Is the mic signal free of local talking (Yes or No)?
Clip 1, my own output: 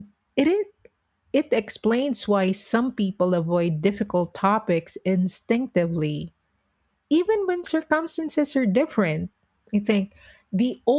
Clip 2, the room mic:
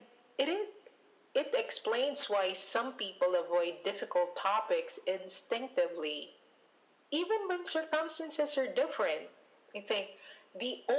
Yes